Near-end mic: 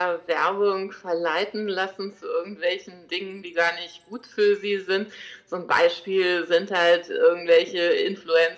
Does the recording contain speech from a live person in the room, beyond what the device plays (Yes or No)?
No